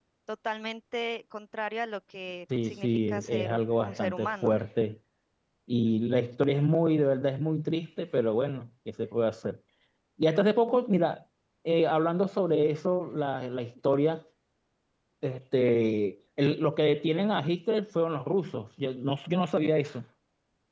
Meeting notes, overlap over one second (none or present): present